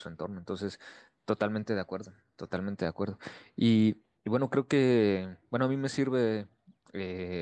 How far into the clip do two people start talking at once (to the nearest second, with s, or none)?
none